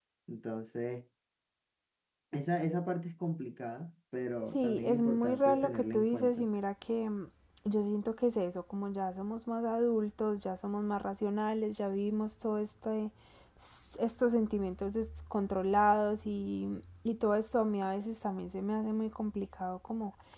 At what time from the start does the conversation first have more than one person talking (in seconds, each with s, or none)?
4.5 s